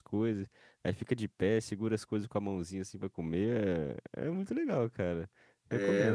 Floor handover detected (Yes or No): Yes